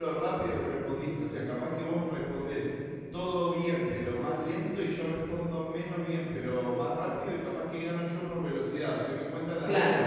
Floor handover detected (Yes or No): Yes